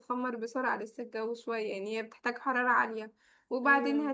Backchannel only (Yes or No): Yes